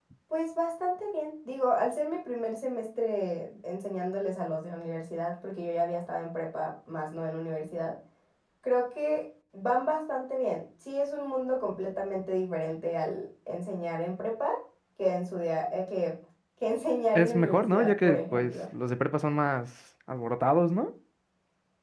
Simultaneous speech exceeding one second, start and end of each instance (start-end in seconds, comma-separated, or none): 17.1-18.5